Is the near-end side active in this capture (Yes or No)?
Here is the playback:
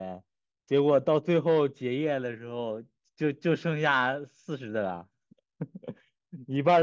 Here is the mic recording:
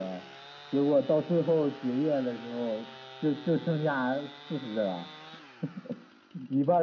No